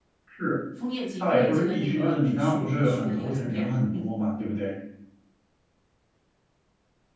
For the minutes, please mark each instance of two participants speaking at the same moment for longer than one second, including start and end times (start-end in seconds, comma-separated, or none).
1.2-4.1